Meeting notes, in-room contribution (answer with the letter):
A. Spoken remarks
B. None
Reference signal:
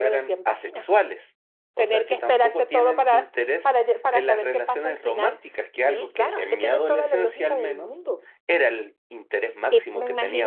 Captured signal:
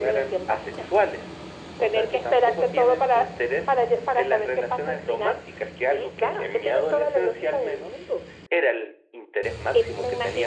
B